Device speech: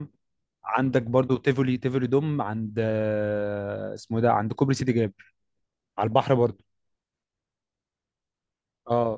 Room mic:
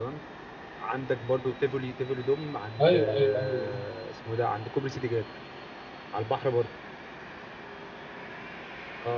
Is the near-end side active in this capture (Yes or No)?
Yes